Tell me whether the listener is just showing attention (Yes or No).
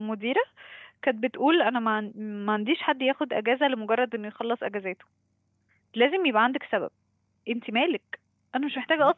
No